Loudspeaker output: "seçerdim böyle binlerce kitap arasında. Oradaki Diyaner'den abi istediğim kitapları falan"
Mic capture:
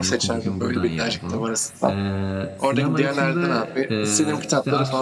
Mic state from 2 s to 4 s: both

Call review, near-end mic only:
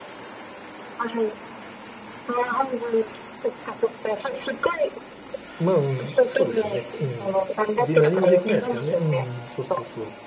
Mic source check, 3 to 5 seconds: echo only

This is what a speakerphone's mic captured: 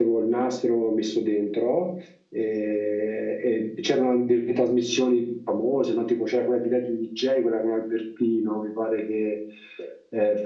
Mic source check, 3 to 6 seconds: user only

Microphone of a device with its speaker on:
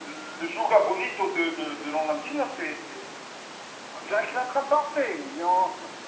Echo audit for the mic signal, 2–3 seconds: echo only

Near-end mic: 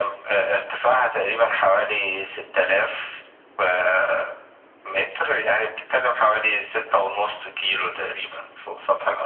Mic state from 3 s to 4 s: echo only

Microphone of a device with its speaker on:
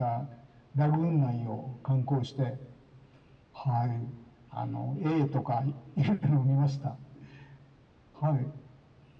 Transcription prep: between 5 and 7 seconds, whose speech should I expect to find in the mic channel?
echo only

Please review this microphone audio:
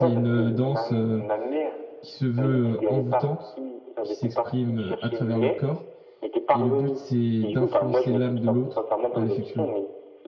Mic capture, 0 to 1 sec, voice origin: both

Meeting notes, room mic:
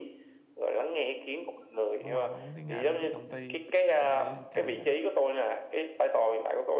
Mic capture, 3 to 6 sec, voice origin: both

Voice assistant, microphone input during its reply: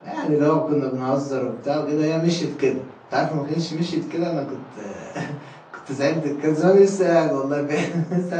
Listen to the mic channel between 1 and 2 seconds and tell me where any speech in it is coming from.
user only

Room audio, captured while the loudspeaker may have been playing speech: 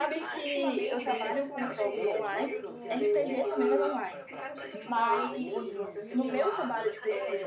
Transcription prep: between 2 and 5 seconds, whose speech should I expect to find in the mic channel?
both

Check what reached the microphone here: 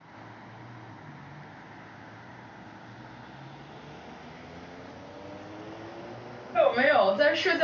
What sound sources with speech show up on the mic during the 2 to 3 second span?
neither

